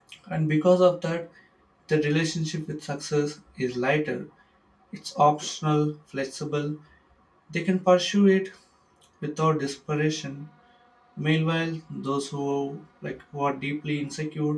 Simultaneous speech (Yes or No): No